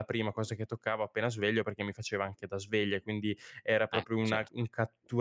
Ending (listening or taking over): listening